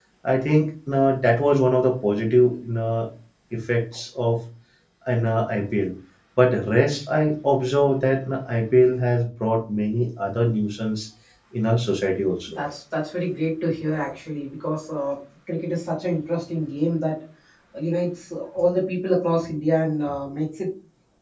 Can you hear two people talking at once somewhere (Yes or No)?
No